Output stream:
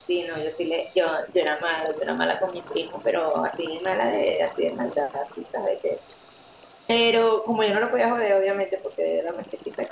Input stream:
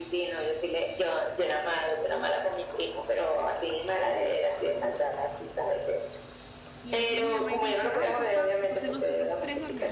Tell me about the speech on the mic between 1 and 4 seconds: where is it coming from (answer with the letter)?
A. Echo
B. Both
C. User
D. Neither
A